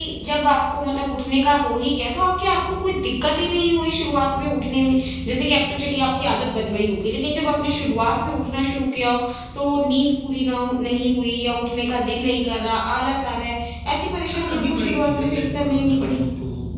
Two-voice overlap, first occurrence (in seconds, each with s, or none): 14.3 s